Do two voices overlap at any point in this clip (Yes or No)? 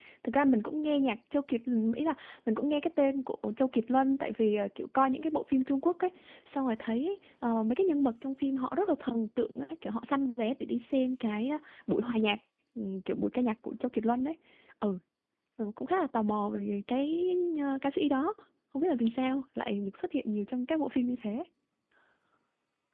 No